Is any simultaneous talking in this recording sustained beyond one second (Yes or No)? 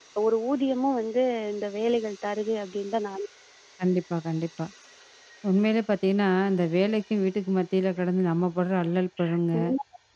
No